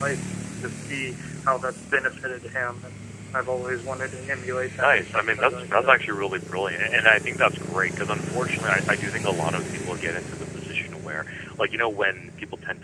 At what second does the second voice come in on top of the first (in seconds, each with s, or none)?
4.8 s